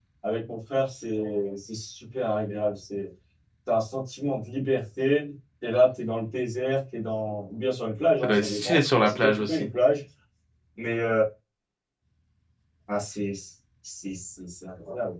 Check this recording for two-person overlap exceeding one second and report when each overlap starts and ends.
8.2-9.7

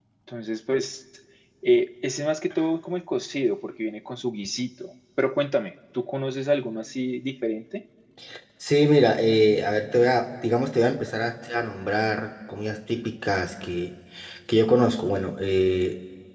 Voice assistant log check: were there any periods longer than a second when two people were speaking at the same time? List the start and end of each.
none

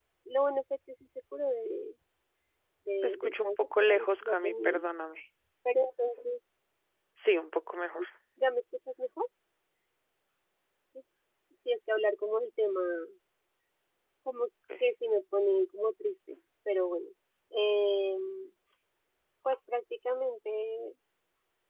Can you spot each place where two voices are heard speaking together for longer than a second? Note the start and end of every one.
3.0-4.8

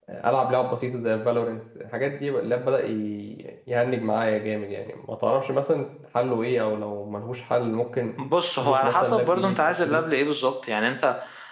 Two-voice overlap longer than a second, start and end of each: 8.6-10.0

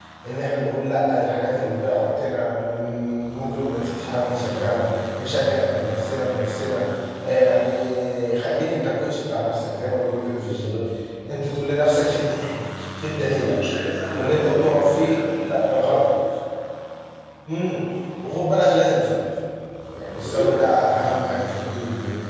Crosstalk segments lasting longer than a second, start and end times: 14.1-15.6

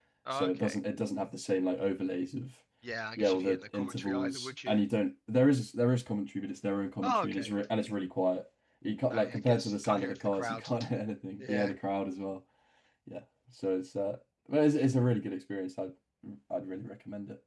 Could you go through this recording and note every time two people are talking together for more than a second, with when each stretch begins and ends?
3.2-4.8, 9.1-10.7

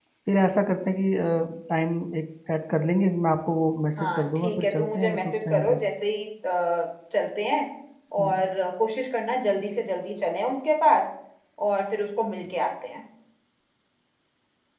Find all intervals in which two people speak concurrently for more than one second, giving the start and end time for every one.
4.0-5.8

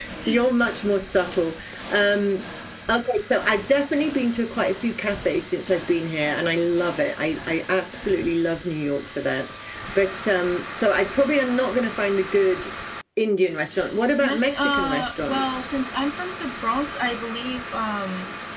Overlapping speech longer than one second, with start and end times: 14.2-15.4

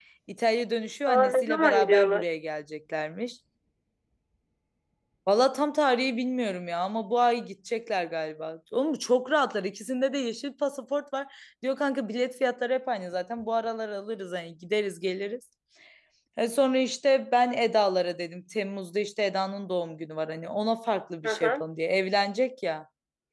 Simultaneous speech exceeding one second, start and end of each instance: 1.1-2.3

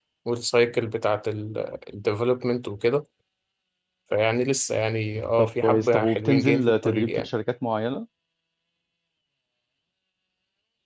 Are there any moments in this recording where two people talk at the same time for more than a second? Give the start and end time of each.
5.4-7.3

